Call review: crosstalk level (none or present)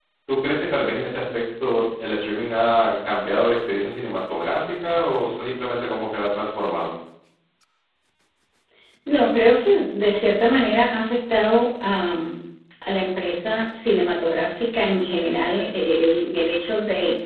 none